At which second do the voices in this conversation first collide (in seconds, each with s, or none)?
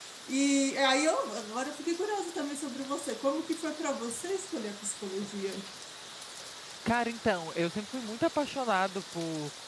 none